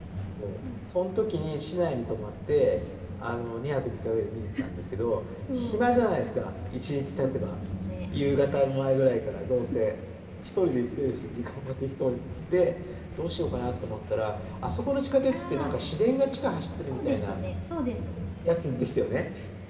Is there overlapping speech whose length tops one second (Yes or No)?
No